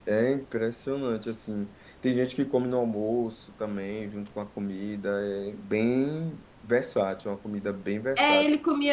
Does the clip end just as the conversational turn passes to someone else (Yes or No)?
Yes